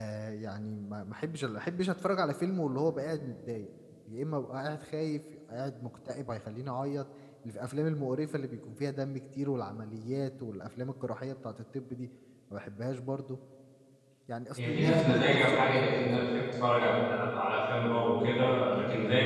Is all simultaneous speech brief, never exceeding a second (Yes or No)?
No